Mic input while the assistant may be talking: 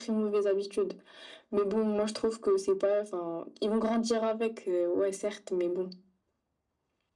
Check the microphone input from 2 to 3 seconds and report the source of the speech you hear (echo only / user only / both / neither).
echo only